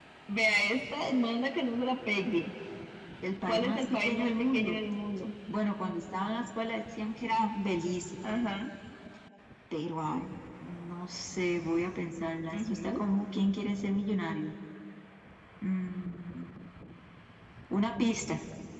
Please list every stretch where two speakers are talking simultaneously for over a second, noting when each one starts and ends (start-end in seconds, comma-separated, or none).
3.5-4.8